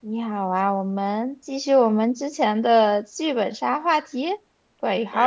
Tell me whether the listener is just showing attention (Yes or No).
No